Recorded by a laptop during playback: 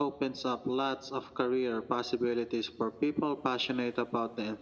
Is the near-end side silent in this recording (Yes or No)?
Yes